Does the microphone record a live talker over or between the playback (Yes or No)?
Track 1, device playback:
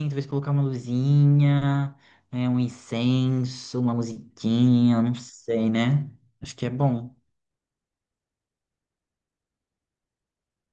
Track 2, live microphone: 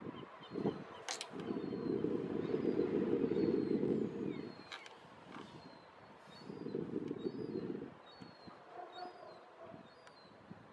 No